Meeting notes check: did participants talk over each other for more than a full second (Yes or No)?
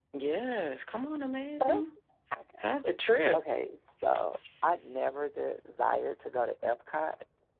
No